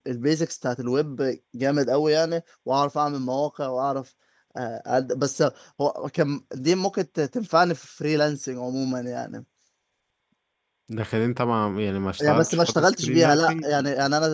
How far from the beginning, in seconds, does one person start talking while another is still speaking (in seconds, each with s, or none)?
12.2 s